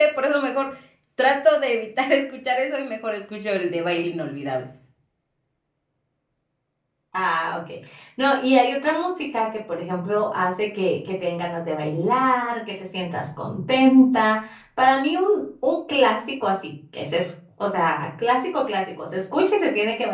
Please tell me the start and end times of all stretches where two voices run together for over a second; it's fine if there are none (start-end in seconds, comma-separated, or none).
none